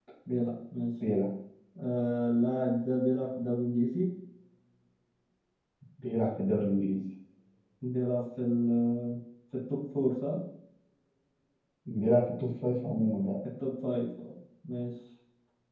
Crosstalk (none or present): none